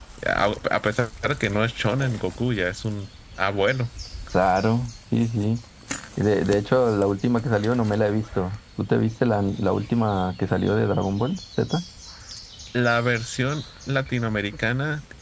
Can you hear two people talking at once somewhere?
No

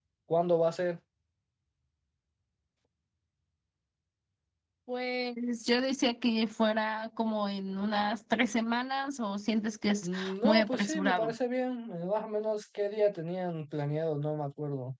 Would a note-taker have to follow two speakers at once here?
Yes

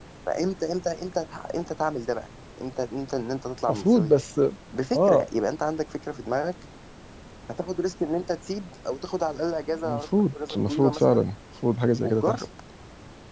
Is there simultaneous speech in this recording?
Yes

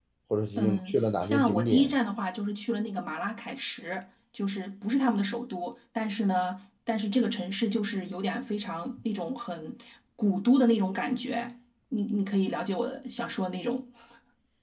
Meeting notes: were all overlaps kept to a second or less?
No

